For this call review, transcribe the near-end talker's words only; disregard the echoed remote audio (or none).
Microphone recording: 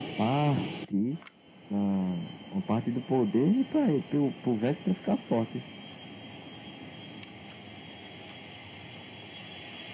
none